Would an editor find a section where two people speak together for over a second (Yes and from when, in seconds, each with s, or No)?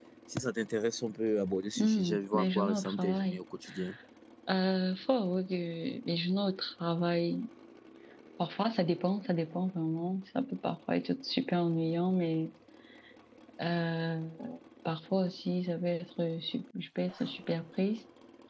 Yes, from 1.8 s